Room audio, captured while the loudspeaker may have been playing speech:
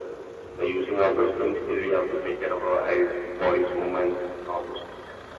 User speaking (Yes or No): No